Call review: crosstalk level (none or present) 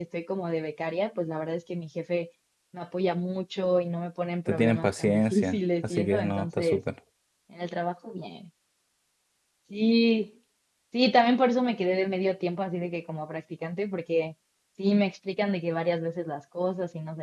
present